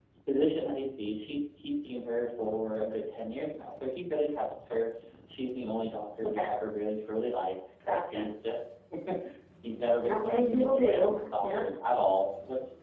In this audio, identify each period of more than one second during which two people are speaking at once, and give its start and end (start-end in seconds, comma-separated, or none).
10.0-11.6